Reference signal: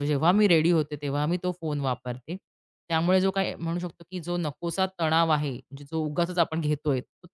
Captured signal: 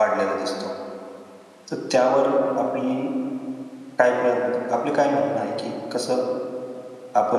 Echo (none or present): none